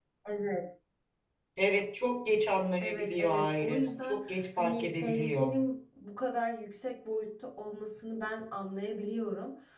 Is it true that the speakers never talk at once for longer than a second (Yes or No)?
No